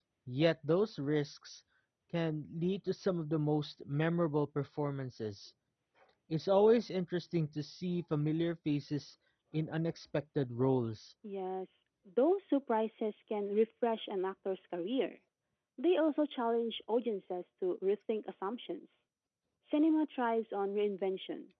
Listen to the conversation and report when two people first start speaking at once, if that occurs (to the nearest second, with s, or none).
none